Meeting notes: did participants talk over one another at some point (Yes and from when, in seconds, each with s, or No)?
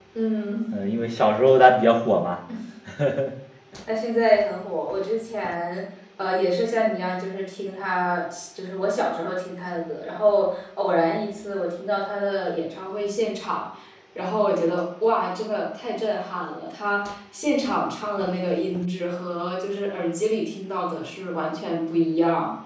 No